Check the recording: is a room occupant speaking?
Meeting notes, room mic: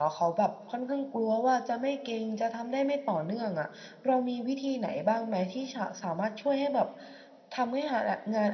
Yes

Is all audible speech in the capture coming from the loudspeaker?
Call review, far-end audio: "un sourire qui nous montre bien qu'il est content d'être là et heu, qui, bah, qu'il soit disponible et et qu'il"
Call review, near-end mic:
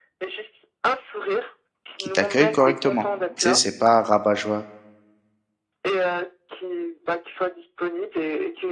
No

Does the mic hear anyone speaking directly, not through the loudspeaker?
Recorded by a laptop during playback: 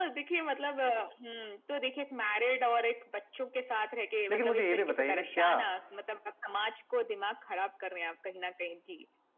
Yes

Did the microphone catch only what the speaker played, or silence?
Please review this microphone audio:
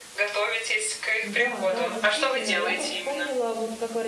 No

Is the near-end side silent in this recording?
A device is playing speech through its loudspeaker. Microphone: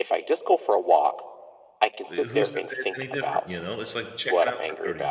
No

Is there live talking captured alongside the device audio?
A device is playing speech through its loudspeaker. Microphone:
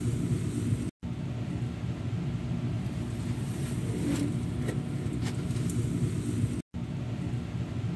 No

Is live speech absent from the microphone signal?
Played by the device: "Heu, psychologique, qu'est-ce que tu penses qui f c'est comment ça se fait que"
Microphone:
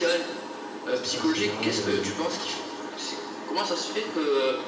No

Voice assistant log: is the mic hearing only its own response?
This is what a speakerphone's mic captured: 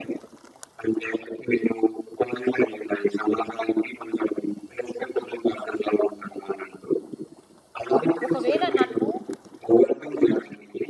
No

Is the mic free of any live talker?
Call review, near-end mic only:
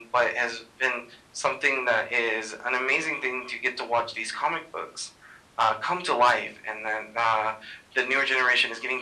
Yes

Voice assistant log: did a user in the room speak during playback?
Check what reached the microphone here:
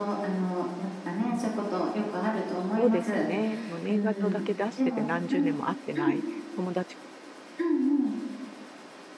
Yes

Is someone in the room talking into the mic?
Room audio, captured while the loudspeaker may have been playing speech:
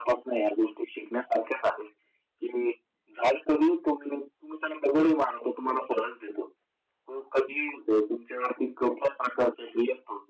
No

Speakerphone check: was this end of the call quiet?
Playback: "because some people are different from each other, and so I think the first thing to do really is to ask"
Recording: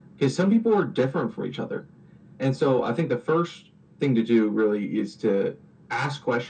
Yes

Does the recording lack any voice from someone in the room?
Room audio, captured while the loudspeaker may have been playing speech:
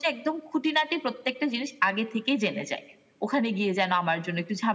Yes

